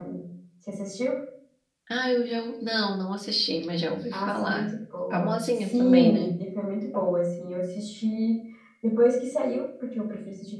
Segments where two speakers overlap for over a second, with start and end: 5.1-6.3

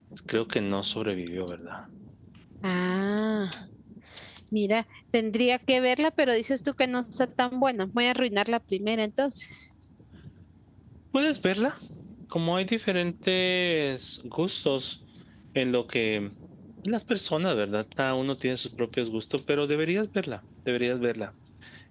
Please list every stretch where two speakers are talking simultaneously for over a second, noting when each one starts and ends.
none

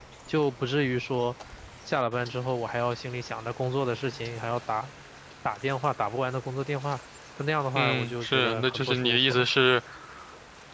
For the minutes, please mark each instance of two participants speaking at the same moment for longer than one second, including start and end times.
7.8-9.5

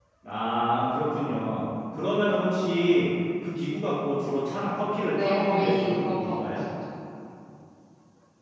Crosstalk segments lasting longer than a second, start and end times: 5.1-6.6

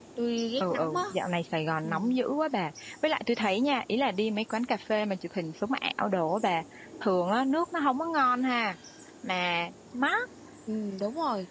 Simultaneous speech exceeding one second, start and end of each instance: none

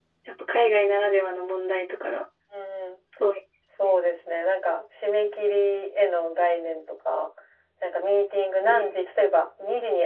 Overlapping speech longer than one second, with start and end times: none

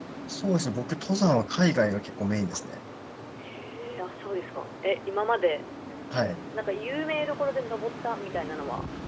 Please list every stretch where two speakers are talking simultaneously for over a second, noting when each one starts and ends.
none

